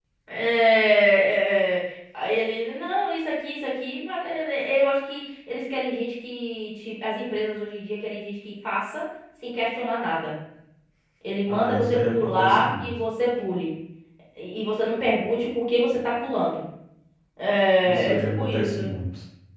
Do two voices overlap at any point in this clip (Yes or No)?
Yes